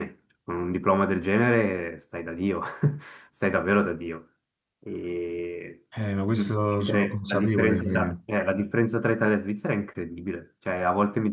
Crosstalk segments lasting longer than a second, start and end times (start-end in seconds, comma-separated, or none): 6.8-8.2